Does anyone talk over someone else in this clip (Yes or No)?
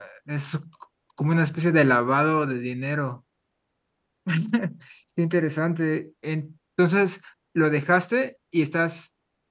No